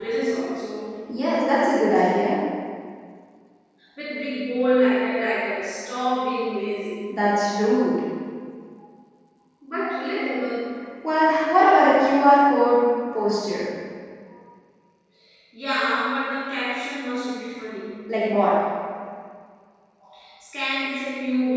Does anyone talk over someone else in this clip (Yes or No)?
No